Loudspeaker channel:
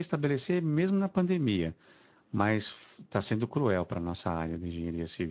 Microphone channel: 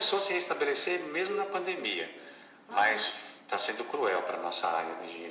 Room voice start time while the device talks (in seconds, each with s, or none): 1.1 s